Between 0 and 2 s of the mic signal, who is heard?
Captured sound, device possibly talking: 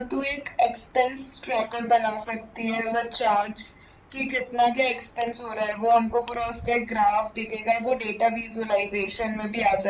echo only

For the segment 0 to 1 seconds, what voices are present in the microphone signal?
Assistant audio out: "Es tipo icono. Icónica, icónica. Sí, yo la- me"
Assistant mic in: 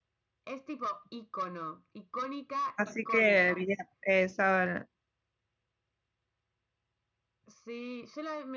echo only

